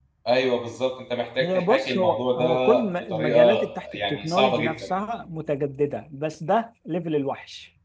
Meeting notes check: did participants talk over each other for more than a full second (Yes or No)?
Yes